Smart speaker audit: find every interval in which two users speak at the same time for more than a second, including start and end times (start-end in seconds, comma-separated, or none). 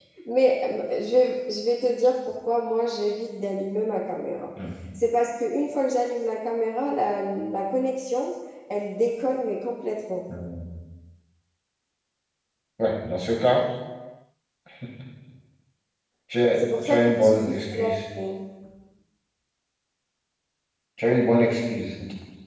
16.6-18.0